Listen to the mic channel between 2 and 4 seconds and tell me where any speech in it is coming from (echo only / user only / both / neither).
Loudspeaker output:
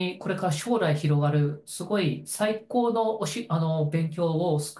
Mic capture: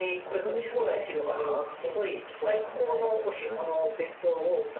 both